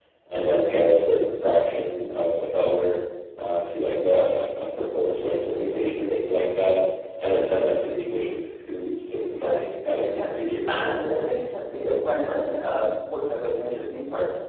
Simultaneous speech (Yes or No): Yes